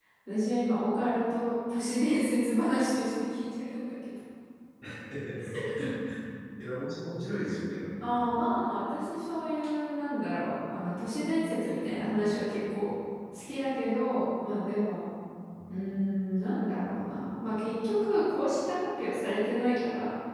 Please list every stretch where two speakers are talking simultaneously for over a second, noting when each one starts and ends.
none

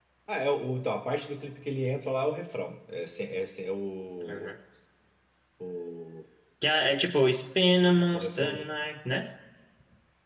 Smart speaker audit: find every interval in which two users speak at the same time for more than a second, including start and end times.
none

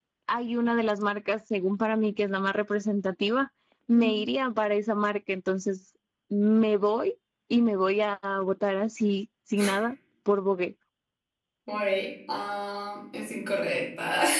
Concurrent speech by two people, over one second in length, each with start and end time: none

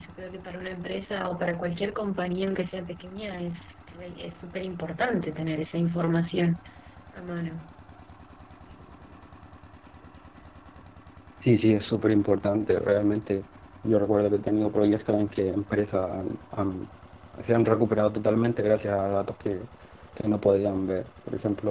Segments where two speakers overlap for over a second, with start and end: none

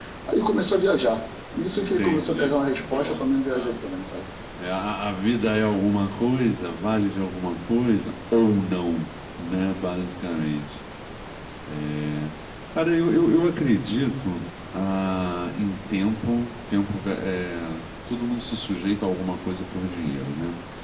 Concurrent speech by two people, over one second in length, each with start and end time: 1.7-3.8

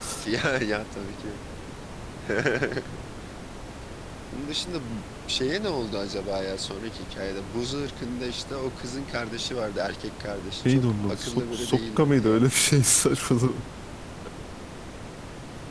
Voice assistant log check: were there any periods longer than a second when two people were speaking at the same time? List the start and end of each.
10.7-12.9

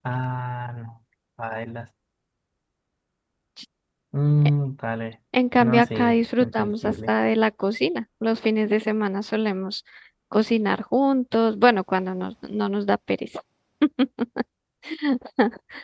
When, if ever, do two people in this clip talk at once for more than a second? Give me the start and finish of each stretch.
5.6-7.1

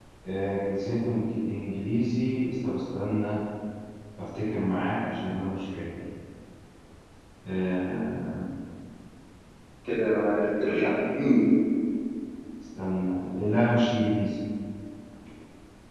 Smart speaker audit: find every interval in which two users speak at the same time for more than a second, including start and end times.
none

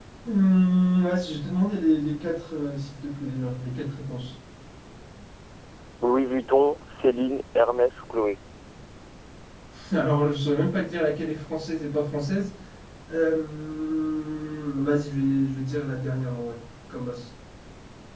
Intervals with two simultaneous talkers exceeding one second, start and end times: none

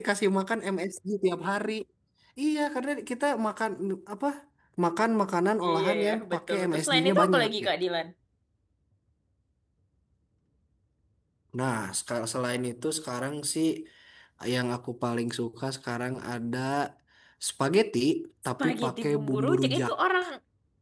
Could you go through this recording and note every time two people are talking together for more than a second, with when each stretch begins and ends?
5.6-7.7, 18.6-19.9

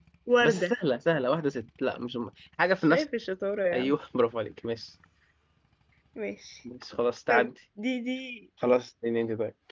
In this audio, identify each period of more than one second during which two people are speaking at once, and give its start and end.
none

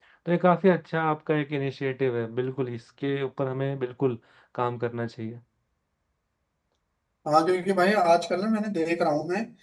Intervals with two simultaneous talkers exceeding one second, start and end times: none

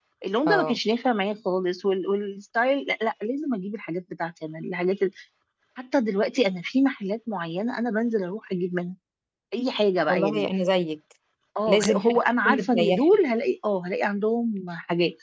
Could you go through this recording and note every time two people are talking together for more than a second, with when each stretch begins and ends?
11.7-13.2

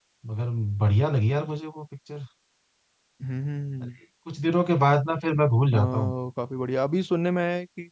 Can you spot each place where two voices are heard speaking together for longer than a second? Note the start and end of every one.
none

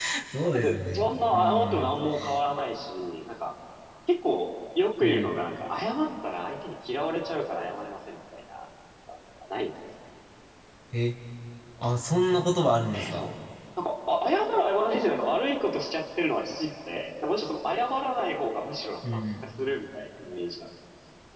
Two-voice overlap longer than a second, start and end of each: 0.5-1.9

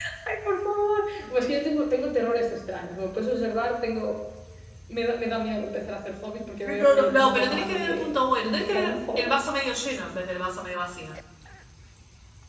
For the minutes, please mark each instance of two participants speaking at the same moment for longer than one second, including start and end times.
6.6-9.4

